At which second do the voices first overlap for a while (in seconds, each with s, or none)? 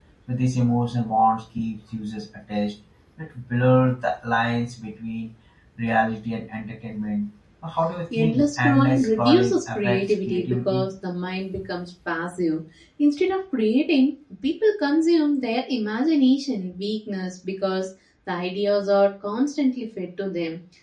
8.1 s